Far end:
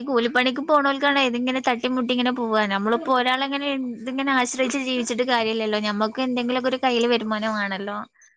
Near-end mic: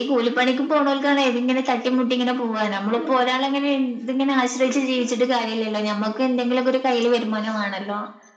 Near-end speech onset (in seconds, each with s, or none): none